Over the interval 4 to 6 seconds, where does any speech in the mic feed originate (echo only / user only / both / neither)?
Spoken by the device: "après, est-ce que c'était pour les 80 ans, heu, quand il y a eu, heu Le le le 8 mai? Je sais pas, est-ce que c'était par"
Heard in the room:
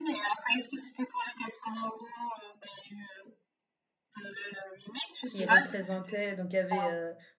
both